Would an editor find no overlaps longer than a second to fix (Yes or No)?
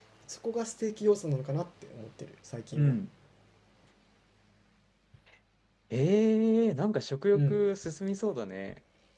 Yes